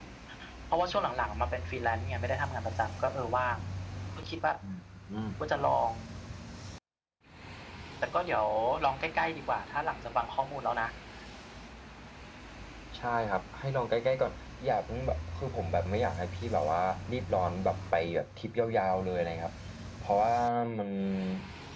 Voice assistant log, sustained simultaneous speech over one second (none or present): none